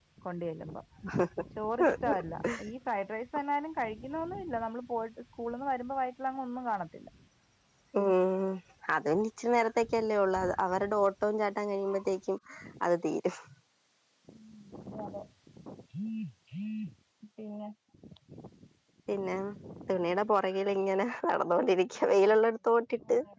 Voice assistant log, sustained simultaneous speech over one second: none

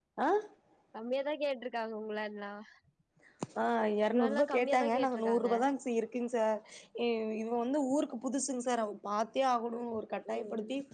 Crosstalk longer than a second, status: present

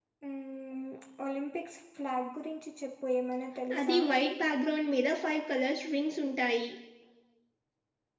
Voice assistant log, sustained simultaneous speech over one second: none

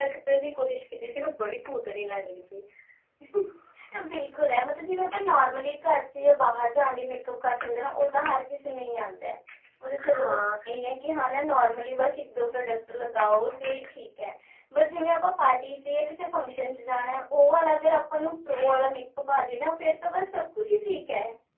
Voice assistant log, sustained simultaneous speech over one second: none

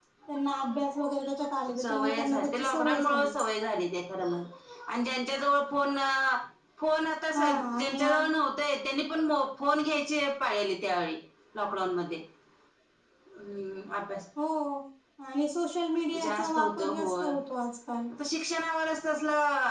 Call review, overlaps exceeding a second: present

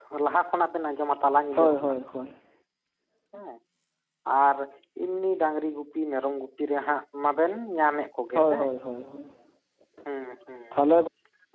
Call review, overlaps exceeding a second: none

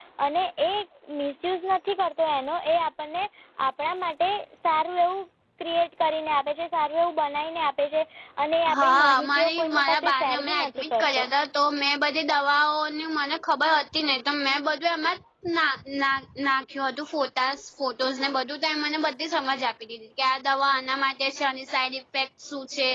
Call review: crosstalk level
present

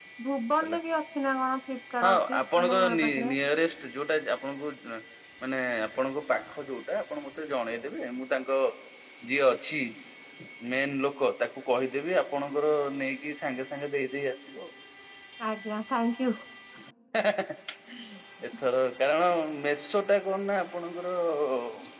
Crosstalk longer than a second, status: present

